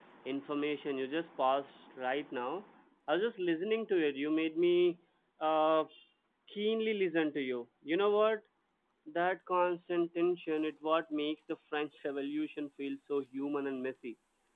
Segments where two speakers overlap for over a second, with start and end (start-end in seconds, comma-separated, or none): none